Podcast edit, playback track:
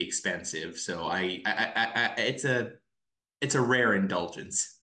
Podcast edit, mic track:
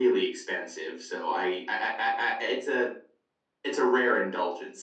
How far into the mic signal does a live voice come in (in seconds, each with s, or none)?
none